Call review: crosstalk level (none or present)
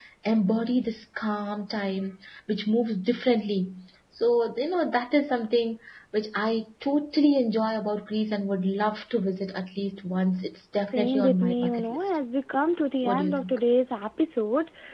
present